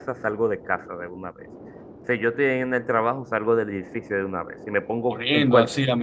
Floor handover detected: Yes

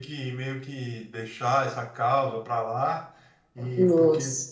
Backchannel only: Yes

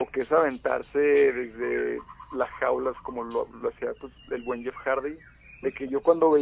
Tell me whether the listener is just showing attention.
Yes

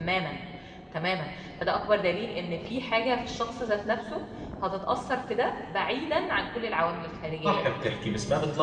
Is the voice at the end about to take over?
Yes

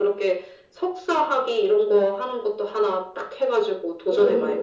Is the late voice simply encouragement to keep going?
No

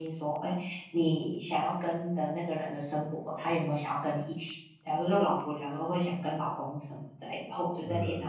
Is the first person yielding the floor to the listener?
No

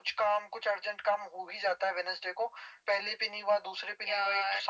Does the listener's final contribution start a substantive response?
No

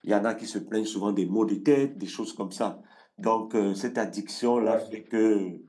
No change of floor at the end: Yes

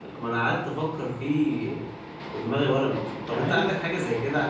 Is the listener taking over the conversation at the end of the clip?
No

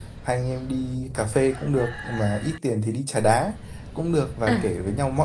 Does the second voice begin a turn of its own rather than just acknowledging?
No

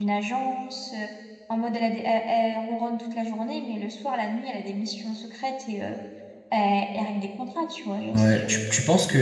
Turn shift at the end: Yes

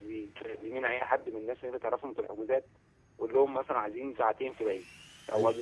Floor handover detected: No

